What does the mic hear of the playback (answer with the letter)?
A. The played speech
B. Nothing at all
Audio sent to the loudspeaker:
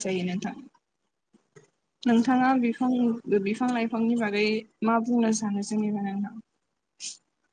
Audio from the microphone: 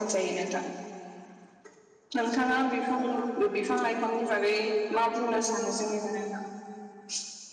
A